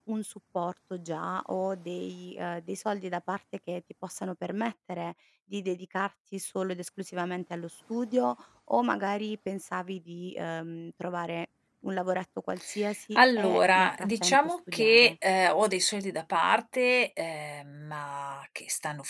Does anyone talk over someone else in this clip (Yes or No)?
Yes